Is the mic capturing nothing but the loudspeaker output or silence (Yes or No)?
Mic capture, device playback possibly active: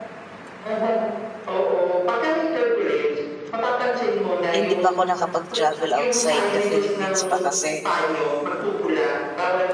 No